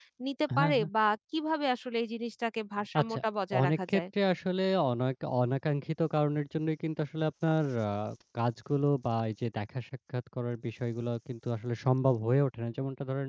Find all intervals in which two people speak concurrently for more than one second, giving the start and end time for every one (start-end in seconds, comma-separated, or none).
none